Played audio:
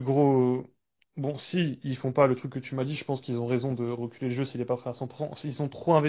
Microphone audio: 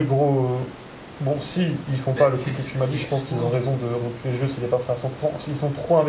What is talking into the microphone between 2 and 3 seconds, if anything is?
both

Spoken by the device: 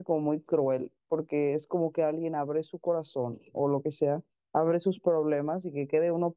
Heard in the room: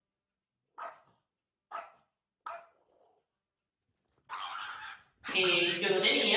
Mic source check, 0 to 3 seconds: neither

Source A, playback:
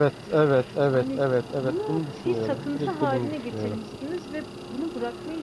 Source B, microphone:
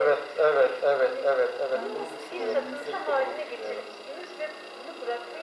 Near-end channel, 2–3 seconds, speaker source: both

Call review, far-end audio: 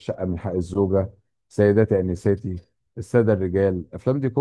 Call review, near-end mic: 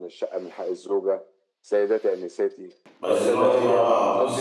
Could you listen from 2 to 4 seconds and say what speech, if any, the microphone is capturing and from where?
both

